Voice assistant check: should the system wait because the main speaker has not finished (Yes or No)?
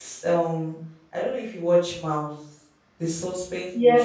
No